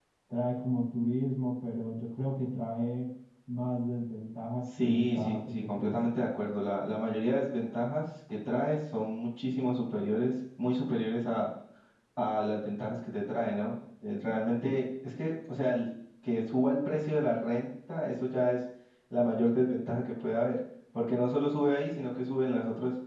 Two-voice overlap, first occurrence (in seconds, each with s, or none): 4.6 s